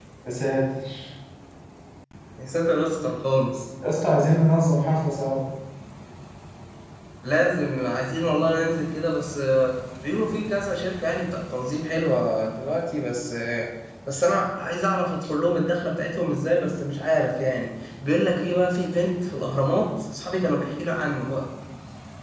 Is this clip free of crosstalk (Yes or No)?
Yes